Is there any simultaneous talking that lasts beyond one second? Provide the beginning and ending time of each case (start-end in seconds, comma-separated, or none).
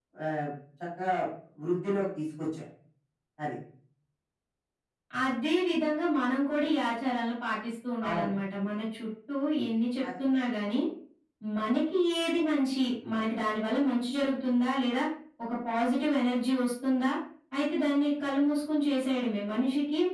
none